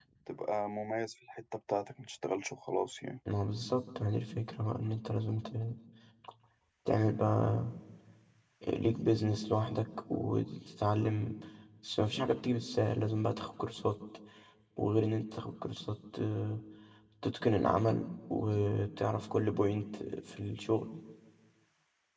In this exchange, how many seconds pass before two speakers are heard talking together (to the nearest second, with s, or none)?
none